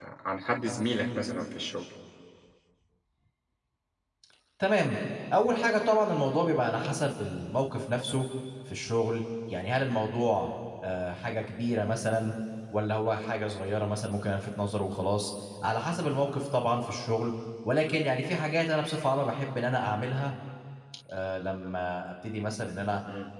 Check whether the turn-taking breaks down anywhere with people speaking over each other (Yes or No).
No